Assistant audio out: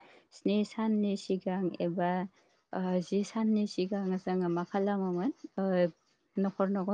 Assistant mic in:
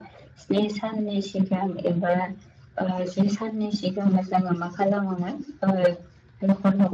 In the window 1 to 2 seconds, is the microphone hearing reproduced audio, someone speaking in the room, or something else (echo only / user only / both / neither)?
echo only